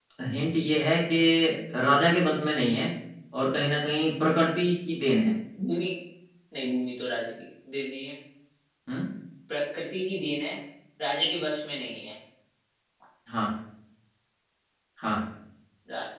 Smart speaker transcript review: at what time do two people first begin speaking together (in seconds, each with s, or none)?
none